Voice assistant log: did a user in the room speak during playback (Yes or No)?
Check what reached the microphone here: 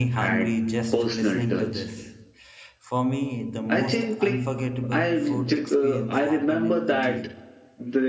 Yes